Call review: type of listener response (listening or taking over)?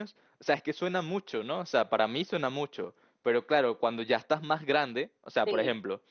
listening